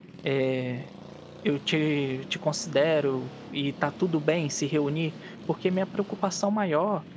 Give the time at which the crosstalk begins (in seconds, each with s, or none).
none